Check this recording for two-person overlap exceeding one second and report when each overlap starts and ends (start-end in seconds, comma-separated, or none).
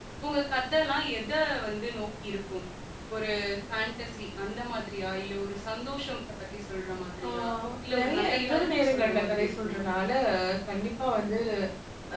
8.0-9.8